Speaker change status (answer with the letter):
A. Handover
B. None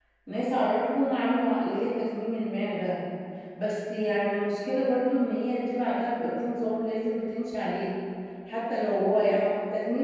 B